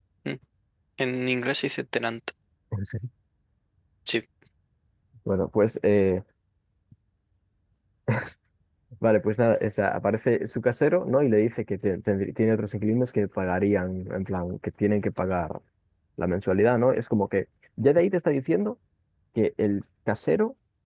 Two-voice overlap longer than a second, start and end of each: none

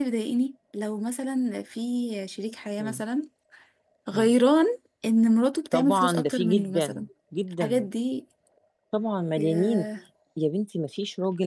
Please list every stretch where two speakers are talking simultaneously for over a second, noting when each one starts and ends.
5.7-7.1

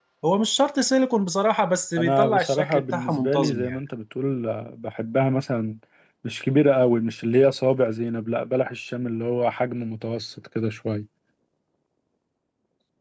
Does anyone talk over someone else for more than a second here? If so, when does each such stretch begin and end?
2.0-3.8

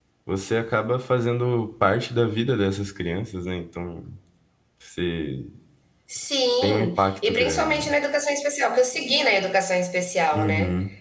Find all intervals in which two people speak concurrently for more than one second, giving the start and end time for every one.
6.6-7.8

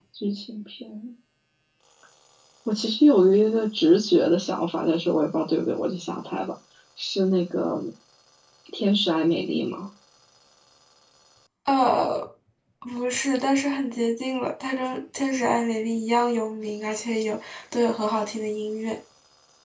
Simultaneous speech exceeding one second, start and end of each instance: none

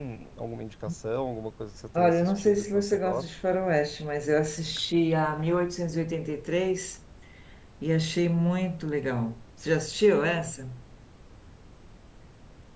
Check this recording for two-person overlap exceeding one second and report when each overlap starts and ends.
1.9-3.4

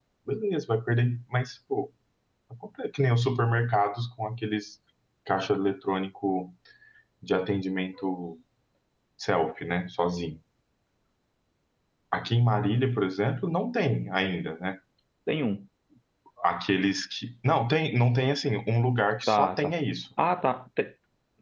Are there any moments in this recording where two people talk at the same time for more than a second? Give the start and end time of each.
none

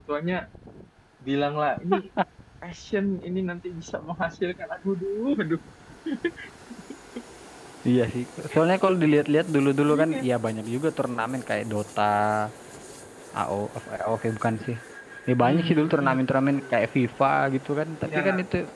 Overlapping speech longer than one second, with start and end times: 15.4-16.7

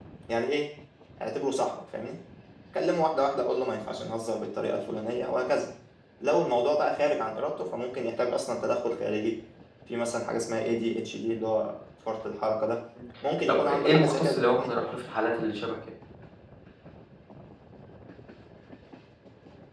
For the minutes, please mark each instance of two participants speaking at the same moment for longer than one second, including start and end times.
13.5-14.7

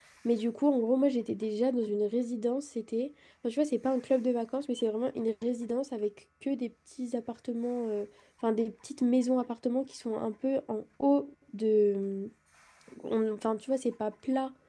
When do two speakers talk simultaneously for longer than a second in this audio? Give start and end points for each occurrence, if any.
none

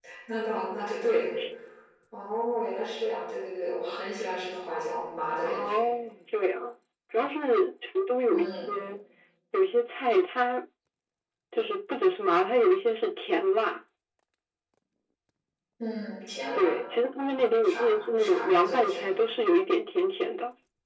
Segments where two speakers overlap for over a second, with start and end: 17.6-19.2

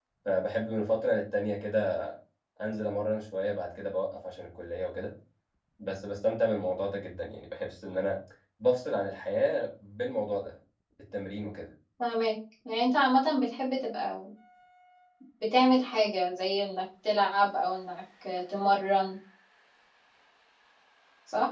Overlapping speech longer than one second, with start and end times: none

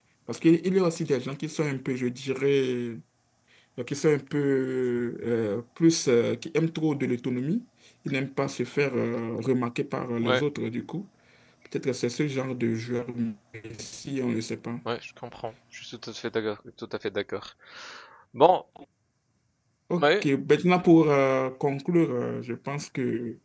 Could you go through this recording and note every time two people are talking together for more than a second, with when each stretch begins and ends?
none

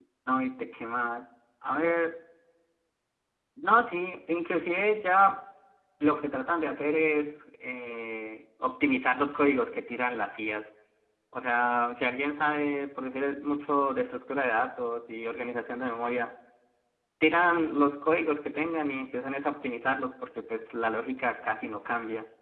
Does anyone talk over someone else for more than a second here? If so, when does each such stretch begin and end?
none

